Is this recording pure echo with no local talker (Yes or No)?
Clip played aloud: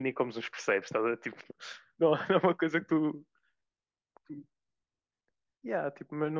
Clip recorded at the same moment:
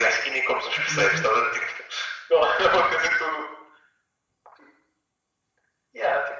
No